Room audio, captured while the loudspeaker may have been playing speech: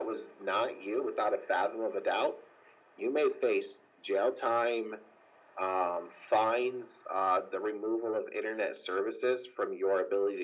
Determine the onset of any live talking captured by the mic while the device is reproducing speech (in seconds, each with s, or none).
none